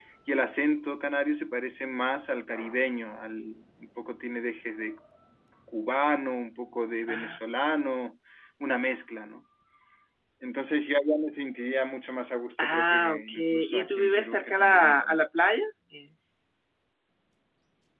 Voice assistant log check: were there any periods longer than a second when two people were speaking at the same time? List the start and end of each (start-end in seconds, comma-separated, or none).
12.6-15.2